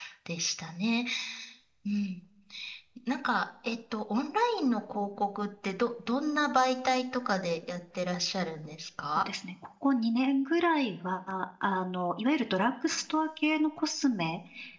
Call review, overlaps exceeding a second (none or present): none